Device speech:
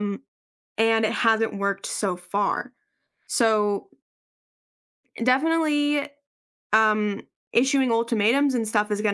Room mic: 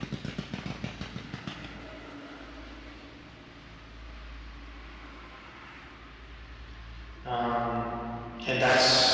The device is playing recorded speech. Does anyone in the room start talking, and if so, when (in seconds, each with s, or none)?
7.2 s